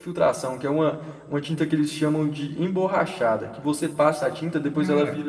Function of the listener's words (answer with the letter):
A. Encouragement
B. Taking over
A